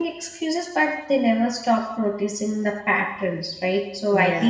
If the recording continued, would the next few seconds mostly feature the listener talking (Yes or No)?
No